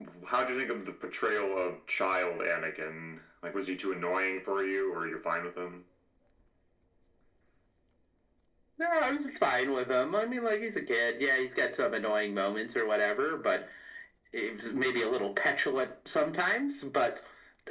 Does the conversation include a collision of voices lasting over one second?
No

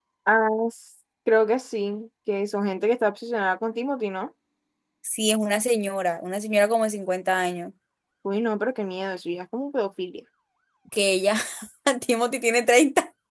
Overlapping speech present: No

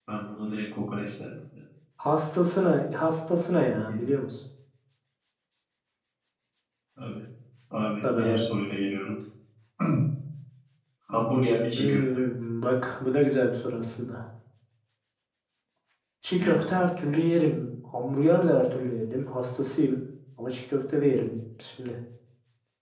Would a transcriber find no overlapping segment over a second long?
Yes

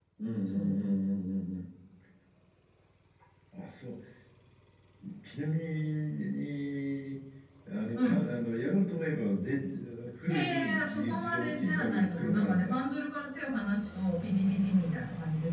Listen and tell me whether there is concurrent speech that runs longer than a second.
Yes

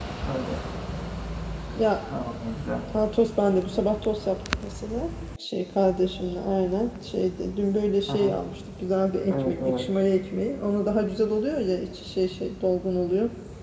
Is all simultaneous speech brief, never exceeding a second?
Yes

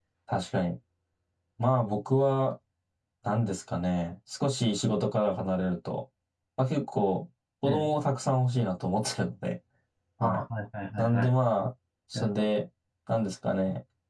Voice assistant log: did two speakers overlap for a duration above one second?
No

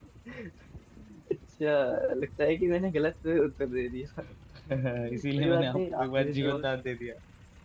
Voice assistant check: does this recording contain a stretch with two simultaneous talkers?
Yes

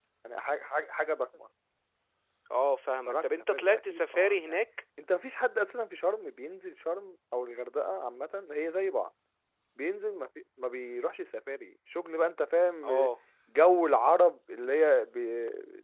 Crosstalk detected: Yes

